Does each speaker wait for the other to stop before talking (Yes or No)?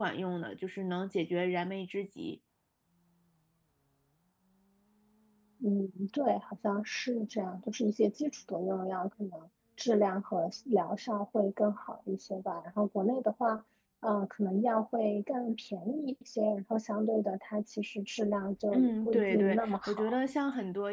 No